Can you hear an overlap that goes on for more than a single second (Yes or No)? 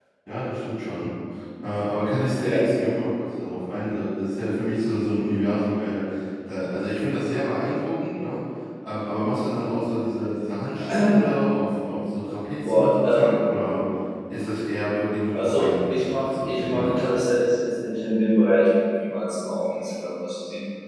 Yes